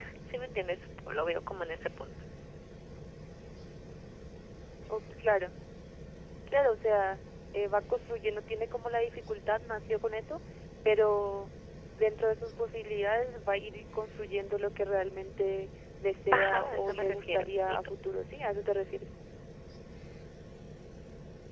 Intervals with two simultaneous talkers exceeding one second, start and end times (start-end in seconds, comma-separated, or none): 16.3-17.8